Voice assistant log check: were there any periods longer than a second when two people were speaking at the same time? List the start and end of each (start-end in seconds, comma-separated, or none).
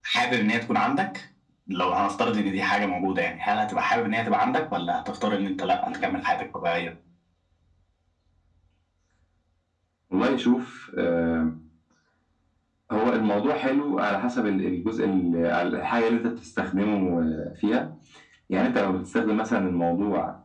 none